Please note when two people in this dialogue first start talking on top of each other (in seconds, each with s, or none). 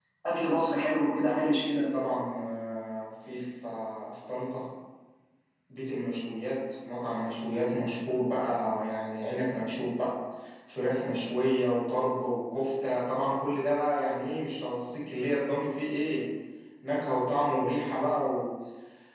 none